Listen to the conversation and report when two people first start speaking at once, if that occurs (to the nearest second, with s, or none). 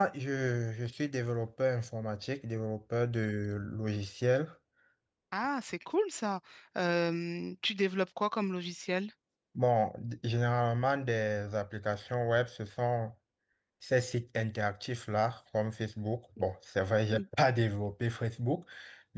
none